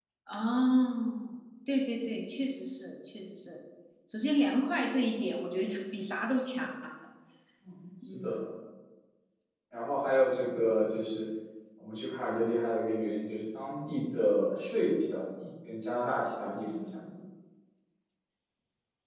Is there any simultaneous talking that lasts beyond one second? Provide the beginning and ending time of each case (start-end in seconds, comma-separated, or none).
none